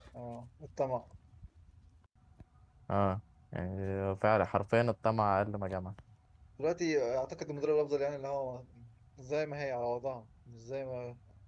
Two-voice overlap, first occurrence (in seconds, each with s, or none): none